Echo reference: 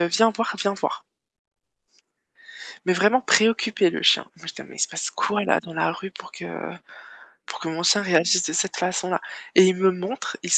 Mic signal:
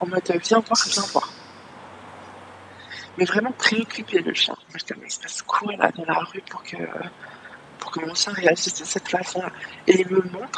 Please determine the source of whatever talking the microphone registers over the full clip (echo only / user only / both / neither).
both